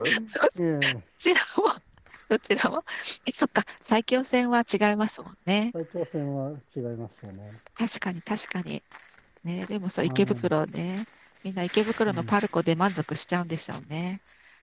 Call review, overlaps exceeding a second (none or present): none